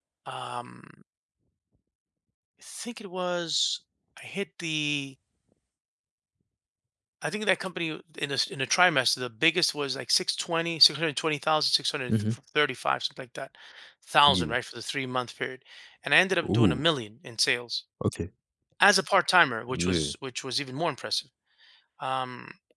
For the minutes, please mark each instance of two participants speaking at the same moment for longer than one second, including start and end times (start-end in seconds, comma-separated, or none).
none